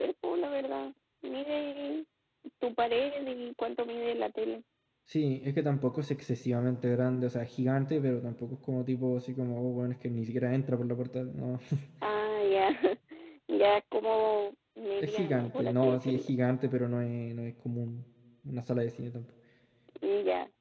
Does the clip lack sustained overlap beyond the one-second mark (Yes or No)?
No